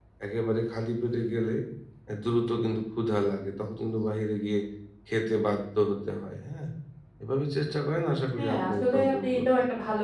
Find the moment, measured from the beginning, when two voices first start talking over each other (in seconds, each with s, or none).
8.4 s